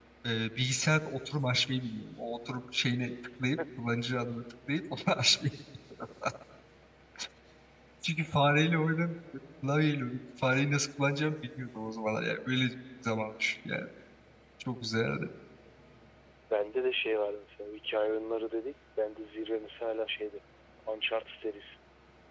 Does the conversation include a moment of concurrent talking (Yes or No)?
No